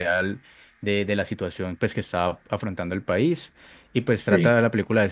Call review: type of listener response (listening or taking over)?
listening